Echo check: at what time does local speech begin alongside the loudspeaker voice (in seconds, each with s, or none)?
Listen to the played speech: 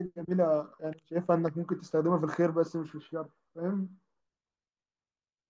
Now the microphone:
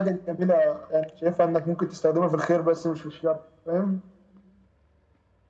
none